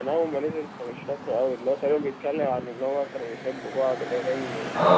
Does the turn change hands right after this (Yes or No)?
Yes